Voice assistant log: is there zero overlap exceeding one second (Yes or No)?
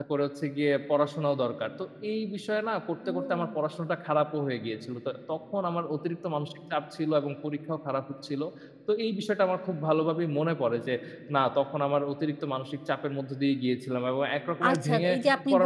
Yes